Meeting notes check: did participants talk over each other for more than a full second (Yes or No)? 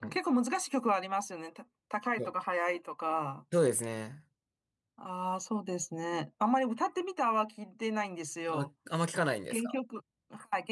No